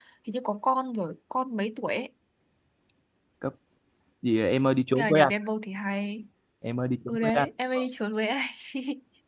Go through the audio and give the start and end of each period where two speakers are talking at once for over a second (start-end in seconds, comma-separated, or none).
none